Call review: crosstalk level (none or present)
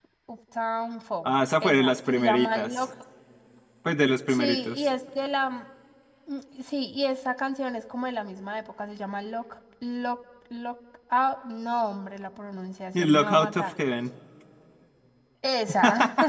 present